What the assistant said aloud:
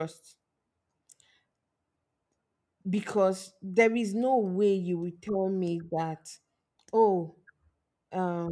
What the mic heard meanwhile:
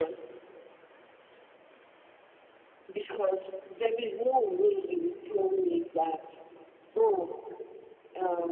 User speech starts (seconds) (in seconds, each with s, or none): none